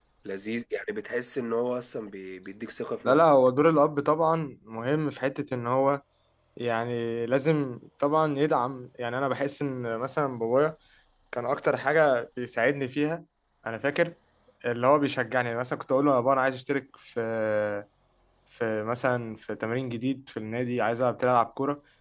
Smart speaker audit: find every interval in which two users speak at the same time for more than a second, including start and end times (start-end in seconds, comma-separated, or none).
none